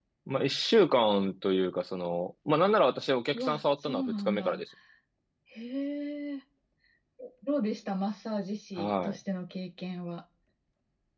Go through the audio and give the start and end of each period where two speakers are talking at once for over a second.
3.3-4.6

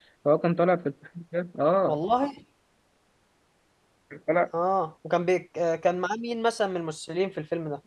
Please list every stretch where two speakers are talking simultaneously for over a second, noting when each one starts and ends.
none

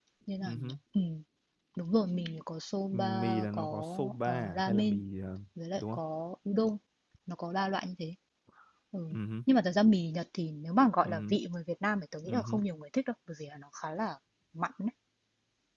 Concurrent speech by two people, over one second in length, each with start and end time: 2.9-5.0

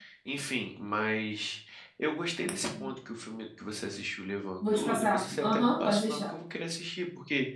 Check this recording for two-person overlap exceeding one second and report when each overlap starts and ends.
4.7-6.3

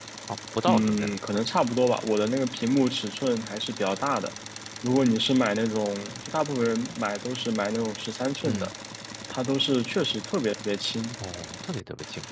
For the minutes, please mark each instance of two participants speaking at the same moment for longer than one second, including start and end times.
none

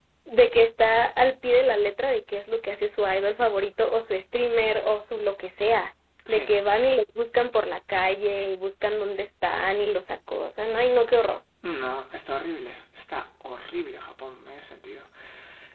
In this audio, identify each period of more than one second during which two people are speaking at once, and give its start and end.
none

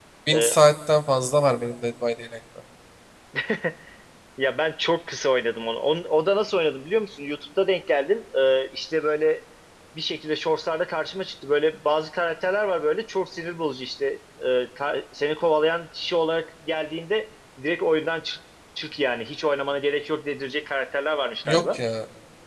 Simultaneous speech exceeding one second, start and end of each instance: none

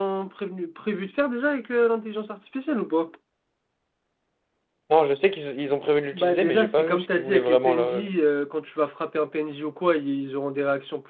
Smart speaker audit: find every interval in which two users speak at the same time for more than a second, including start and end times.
6.1-8.0

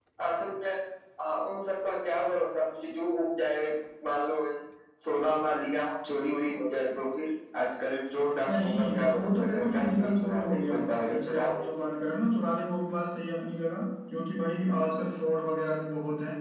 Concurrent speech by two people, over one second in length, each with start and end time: 8.5-11.6

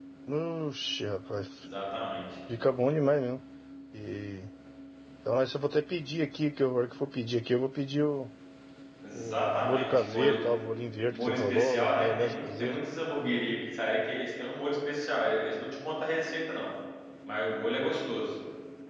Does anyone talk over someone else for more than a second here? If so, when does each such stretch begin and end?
9.1-10.4, 11.1-12.8

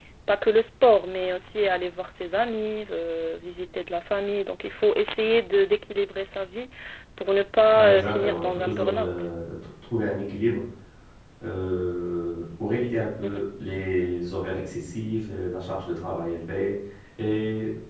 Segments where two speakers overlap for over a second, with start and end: 7.7-9.1

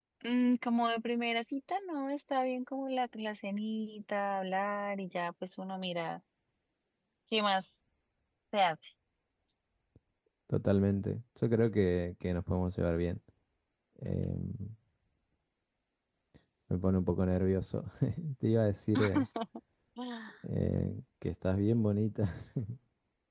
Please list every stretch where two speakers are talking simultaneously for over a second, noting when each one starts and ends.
none

